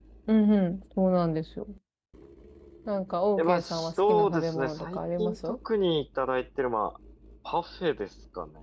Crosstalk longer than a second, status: present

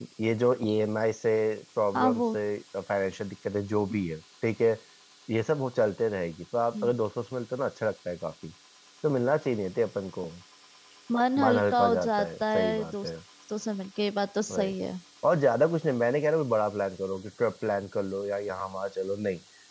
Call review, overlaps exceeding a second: present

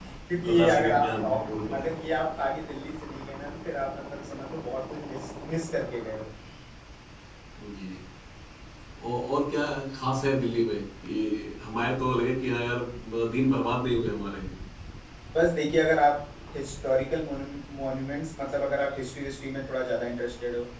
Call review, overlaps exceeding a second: present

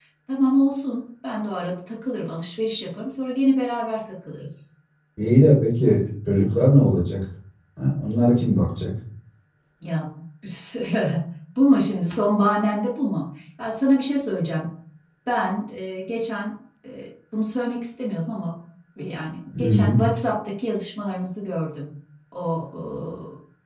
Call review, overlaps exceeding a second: none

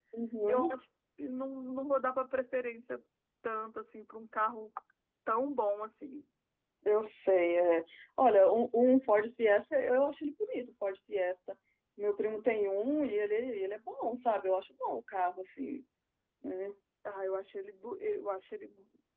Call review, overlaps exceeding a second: none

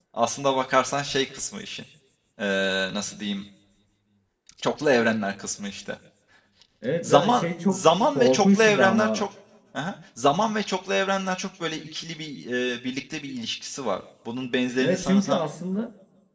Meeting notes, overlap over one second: present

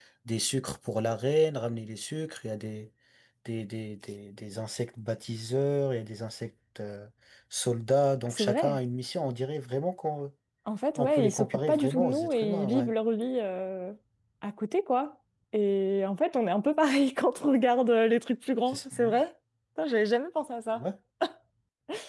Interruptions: present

